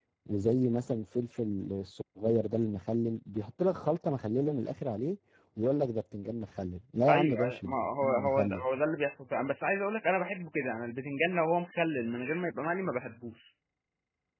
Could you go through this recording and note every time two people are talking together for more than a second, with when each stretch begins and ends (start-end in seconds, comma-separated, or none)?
7.1-8.6